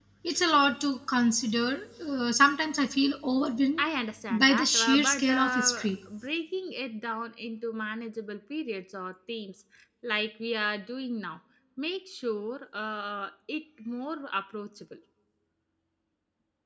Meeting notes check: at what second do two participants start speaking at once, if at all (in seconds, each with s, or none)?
4.3 s